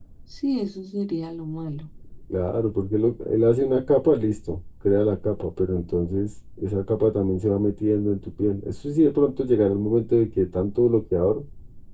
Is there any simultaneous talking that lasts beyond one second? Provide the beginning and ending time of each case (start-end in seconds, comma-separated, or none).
none